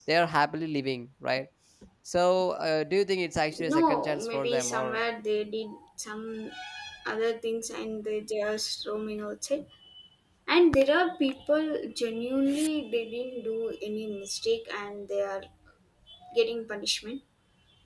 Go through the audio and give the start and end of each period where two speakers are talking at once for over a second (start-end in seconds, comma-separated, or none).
3.6-5.0